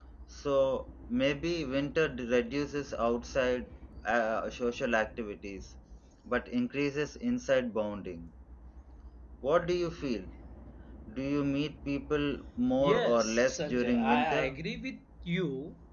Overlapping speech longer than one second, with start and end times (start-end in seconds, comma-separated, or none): 12.8-14.6